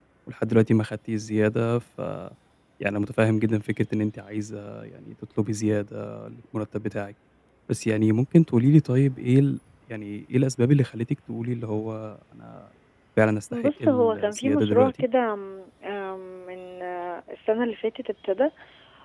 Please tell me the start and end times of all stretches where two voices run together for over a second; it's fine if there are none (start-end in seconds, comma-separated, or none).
13.5-14.9